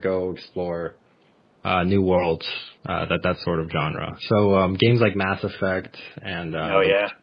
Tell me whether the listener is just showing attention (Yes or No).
Yes